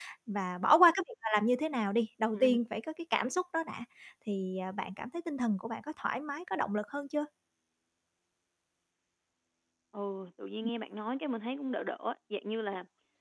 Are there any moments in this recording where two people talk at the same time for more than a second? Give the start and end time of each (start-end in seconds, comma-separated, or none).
none